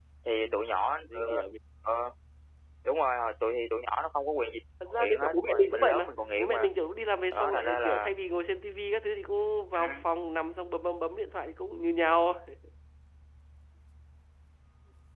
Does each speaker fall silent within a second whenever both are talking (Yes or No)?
No